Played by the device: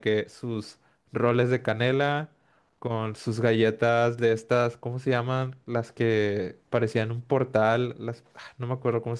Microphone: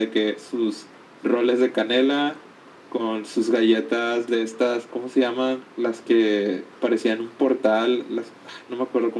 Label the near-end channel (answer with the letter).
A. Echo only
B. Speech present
A